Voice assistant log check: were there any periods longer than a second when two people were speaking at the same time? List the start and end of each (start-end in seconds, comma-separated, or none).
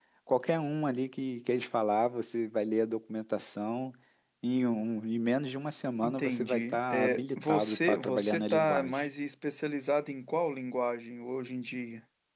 6.0-9.0